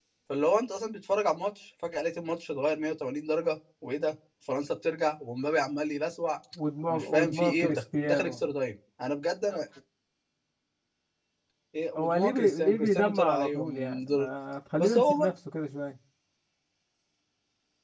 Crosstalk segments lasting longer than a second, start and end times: 6.9-8.4, 12.0-14.3

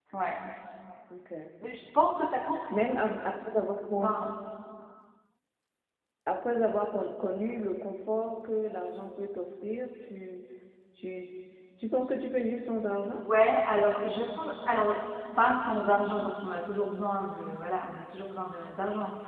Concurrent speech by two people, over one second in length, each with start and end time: none

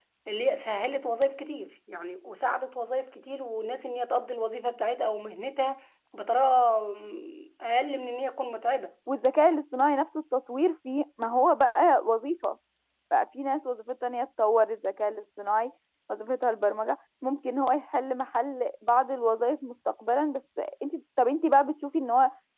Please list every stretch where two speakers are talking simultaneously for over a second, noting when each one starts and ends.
none

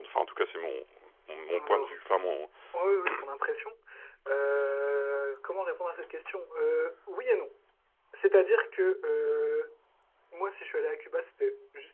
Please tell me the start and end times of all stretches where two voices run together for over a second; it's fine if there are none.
none

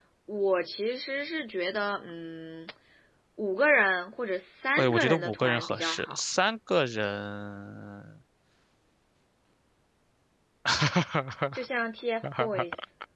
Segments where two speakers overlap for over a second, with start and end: 4.8-6.2

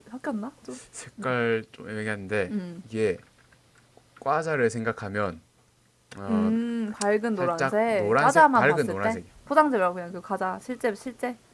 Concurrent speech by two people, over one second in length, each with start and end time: 7.4-9.2

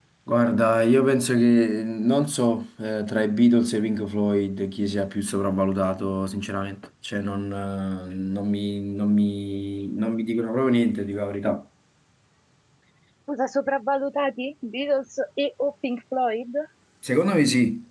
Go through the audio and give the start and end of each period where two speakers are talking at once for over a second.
none

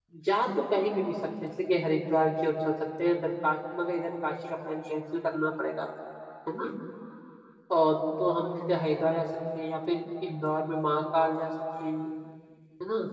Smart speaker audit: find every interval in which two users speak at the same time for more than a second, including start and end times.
none

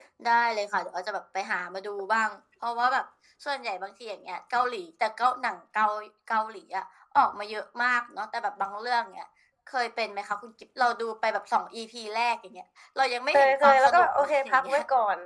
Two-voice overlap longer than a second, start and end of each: 13.3-14.8

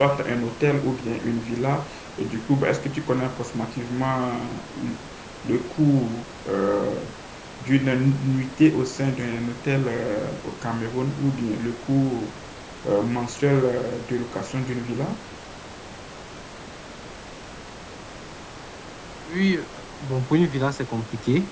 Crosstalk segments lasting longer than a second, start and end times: none

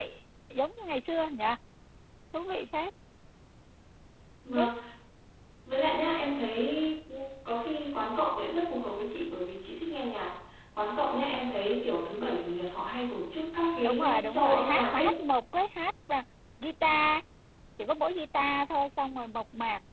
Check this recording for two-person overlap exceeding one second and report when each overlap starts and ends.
13.8-15.1

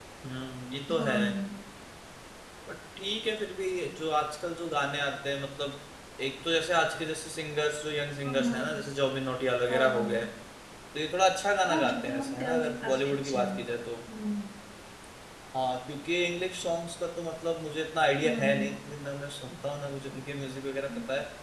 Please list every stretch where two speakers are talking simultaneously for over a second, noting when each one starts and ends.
11.7-13.6

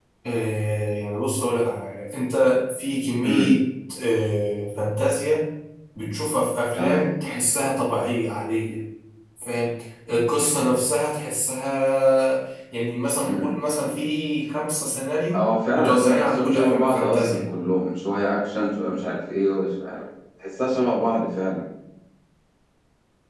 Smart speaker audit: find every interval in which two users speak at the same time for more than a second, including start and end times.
15.3-17.5

